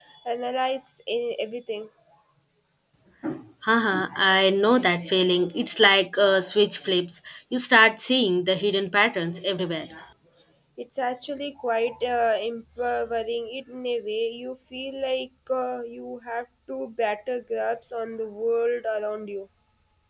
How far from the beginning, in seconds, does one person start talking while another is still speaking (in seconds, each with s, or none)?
none